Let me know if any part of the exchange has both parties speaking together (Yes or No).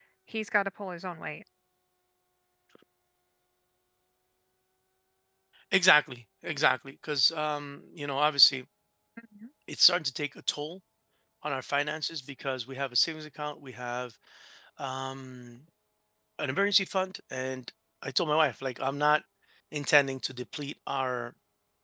No